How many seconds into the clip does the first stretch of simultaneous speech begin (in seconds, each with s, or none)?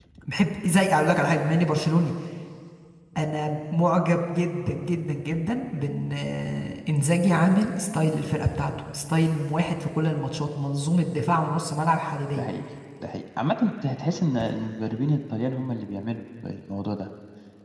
none